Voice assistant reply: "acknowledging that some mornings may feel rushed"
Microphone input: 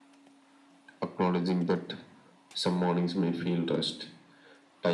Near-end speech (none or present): none